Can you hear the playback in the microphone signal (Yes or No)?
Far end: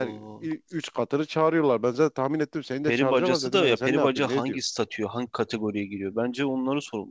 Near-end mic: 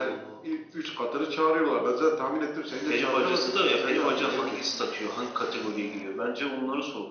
Yes